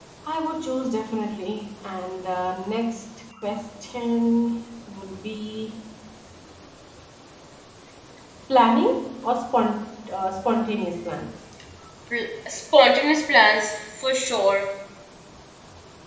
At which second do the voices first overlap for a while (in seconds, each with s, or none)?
none